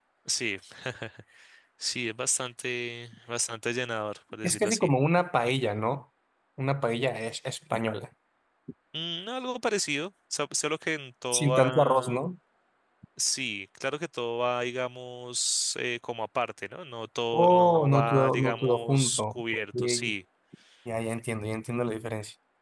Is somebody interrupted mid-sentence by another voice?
Yes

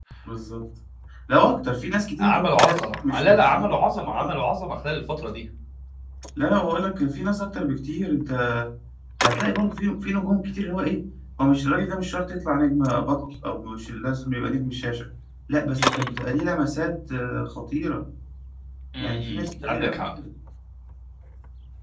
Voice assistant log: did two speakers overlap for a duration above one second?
Yes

